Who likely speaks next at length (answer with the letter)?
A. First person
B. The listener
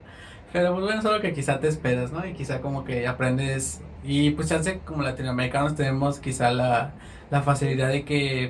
A